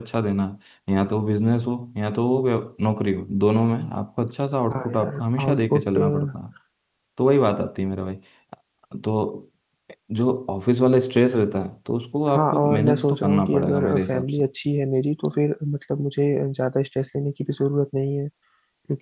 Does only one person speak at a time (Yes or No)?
No